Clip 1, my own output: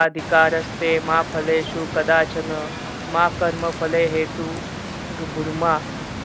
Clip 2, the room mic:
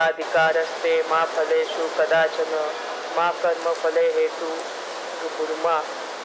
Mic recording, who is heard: echo only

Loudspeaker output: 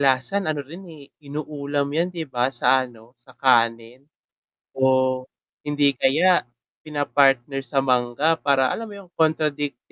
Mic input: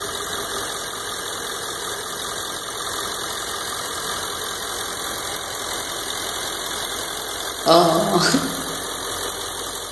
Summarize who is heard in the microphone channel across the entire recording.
user only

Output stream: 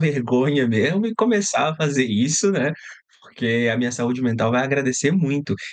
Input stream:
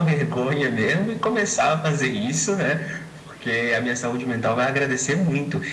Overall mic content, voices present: echo only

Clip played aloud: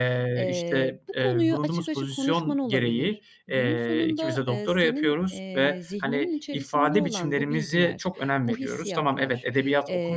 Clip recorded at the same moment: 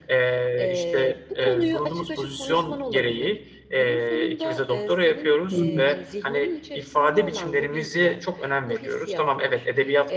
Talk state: both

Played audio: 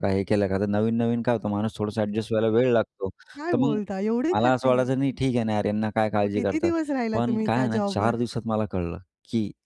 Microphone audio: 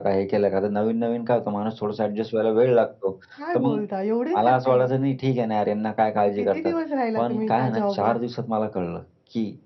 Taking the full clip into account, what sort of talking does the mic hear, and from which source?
echo only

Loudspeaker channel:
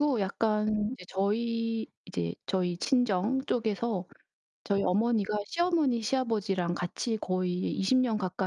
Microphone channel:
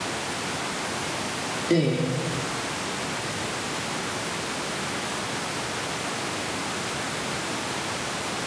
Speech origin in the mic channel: user only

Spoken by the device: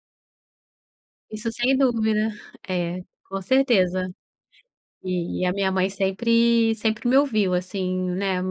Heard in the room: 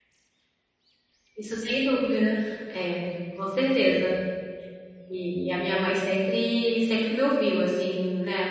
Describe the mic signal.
echo only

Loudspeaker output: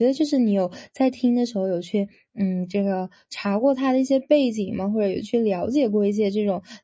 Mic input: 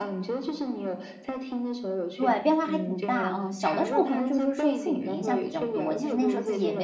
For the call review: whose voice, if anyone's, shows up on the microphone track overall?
both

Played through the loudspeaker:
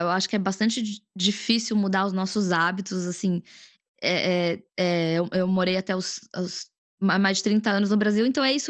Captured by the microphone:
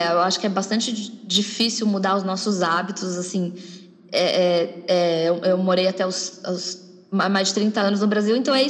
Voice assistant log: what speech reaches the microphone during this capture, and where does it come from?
echo only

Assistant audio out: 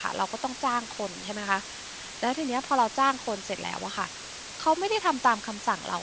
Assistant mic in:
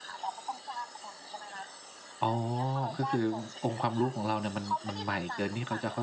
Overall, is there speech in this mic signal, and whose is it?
both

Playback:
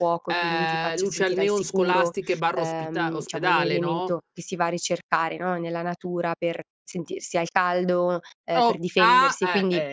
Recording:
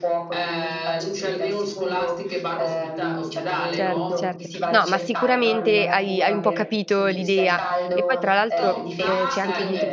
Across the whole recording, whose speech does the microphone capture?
both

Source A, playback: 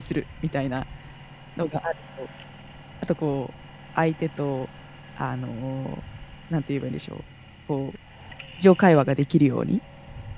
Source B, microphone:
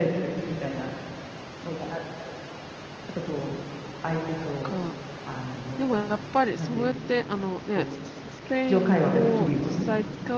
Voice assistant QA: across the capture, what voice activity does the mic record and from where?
both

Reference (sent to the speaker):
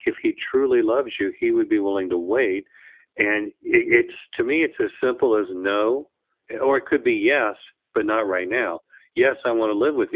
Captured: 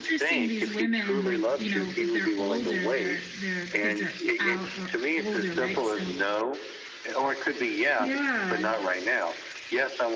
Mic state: both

